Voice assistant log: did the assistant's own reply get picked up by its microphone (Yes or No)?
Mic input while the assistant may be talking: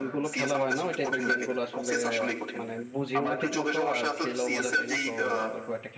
Yes